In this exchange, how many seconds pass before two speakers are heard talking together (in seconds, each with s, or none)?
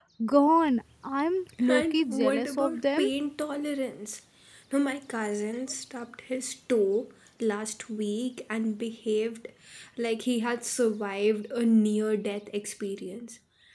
1.6 s